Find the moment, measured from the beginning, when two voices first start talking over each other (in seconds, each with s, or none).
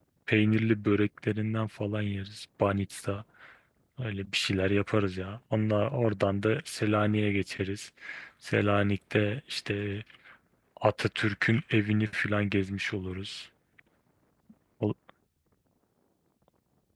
none